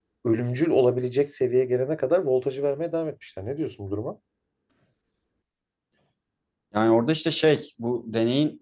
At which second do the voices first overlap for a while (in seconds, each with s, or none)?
none